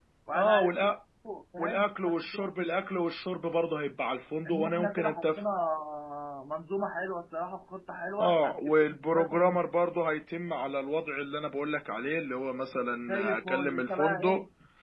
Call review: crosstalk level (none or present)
present